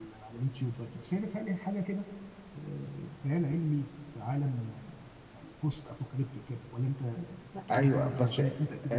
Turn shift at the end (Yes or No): Yes